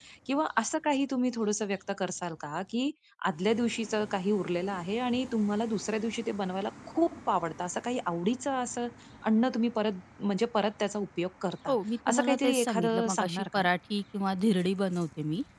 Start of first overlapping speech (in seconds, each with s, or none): 12.1 s